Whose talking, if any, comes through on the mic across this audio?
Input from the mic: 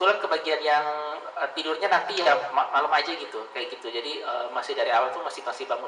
echo only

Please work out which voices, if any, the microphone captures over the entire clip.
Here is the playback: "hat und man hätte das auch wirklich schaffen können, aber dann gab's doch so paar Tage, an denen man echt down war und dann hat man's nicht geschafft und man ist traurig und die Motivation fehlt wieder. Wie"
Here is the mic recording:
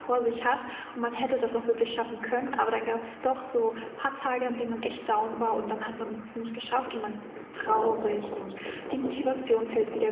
echo only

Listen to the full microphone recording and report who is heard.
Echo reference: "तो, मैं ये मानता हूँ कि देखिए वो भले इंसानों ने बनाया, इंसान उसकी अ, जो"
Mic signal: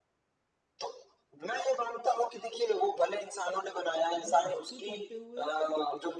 both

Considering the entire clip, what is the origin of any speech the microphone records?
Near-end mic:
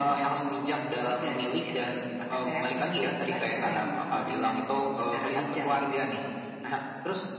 echo only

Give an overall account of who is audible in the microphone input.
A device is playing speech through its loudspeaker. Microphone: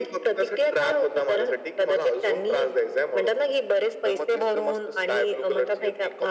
echo only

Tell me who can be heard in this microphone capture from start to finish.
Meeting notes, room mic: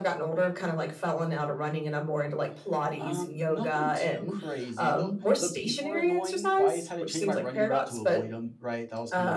both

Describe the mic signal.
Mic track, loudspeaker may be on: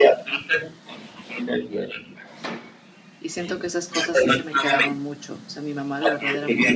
both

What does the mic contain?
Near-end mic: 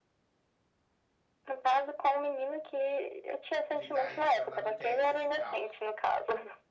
both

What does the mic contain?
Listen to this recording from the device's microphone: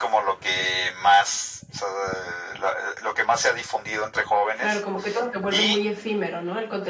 both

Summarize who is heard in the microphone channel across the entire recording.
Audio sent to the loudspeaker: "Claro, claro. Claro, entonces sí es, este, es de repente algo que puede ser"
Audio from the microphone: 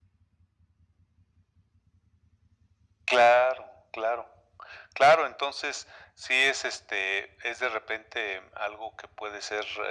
echo only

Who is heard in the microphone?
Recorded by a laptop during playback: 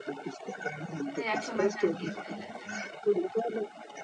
both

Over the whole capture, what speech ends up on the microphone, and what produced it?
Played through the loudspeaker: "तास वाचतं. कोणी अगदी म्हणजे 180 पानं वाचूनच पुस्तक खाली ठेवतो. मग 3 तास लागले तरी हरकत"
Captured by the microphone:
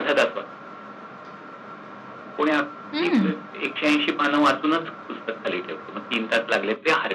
both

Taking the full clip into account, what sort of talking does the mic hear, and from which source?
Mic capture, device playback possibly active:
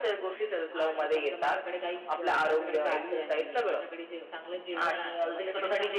both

